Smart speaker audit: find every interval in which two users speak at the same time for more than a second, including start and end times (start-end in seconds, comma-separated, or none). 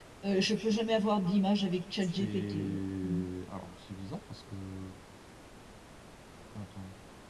2.0-3.2